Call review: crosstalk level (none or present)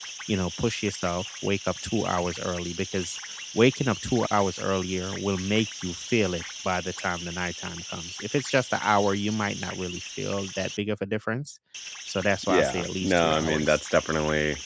present